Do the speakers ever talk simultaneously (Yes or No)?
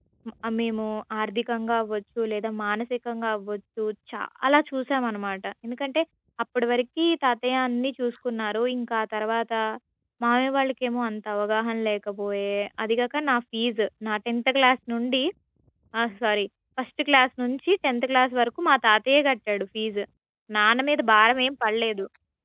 No